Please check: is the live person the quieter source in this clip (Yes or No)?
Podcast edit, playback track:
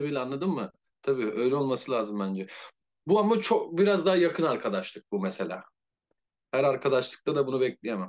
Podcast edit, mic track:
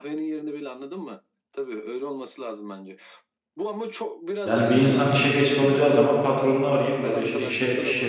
No